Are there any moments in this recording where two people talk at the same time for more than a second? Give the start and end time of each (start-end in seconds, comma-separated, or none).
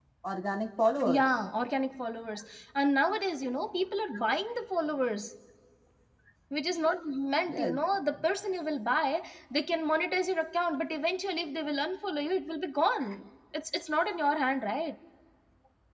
none